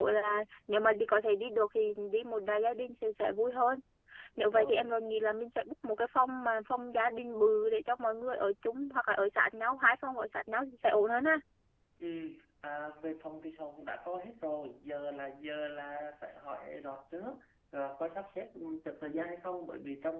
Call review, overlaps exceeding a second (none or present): none